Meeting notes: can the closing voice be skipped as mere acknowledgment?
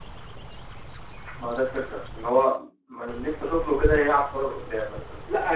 No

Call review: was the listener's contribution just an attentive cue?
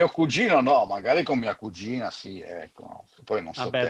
No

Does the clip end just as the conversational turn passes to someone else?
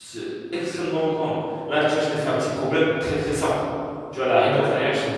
No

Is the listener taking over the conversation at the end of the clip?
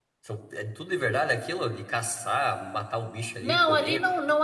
Yes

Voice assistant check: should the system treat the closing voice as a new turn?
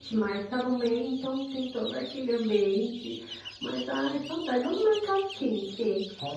No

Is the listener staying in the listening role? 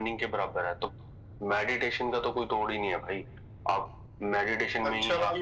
No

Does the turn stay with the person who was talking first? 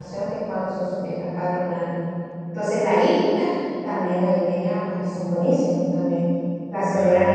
Yes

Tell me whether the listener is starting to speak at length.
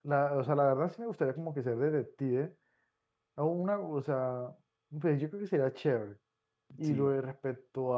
No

